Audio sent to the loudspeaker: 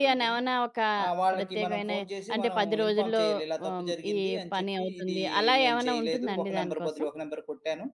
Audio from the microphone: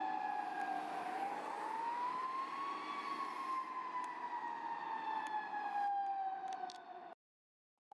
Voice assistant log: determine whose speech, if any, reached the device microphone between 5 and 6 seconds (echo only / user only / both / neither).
neither